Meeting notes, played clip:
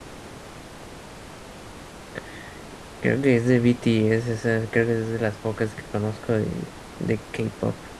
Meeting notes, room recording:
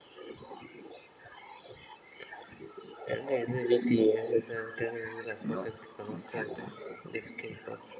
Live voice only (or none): No, son siete.